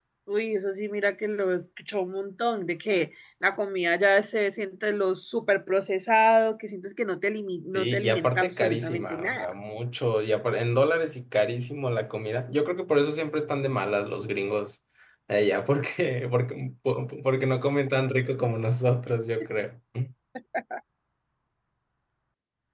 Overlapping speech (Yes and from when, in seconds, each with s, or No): Yes, from 7.7 s